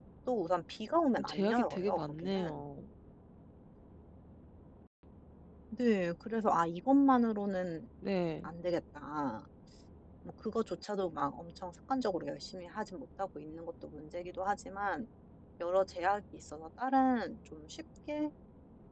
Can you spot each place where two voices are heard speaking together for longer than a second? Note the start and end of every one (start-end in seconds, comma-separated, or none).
1.1-2.6